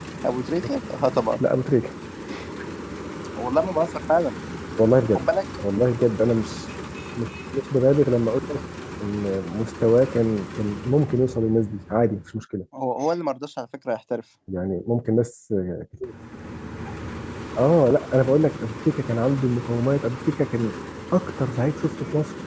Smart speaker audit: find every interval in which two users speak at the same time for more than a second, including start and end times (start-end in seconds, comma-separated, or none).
none